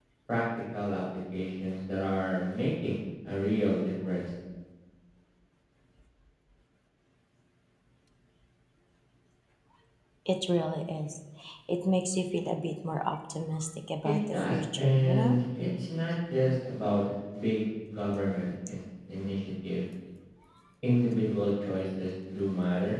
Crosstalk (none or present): present